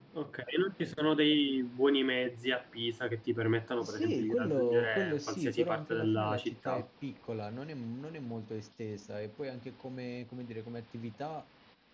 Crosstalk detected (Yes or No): Yes